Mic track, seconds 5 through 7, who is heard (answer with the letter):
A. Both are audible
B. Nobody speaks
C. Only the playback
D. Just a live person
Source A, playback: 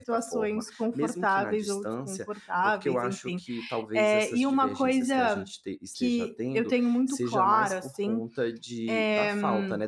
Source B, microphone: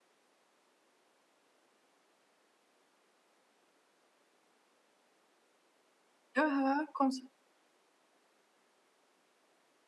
D